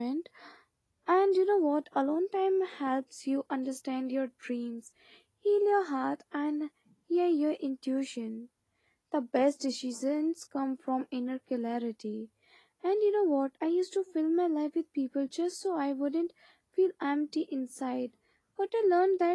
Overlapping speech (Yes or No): No